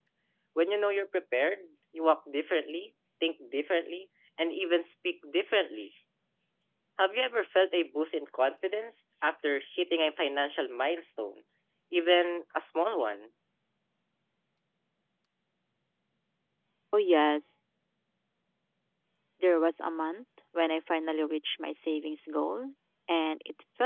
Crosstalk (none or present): none